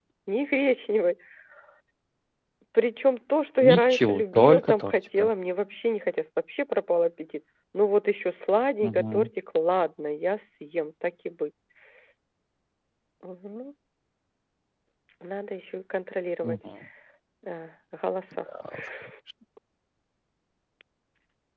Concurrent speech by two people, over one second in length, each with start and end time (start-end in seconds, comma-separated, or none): 3.6-5.3